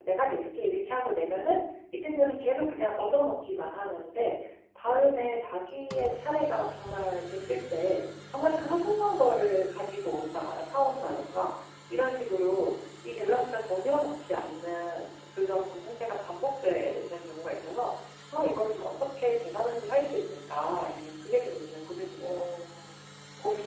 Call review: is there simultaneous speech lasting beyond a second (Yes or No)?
No